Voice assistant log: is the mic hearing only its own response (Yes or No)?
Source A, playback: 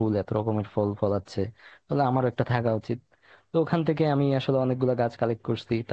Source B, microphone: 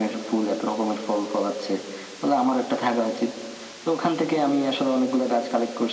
Yes